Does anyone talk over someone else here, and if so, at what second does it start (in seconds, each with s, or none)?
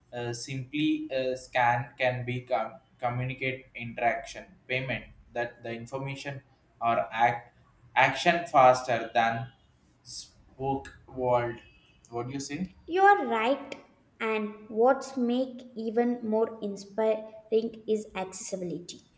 none